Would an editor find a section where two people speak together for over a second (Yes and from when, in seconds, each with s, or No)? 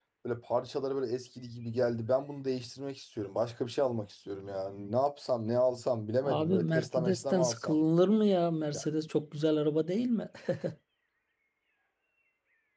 Yes, from 6.2 s